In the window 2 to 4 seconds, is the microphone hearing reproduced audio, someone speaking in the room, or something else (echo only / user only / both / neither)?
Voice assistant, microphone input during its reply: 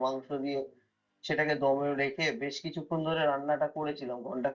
echo only